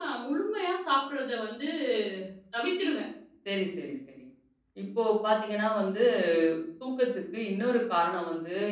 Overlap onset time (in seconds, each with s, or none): none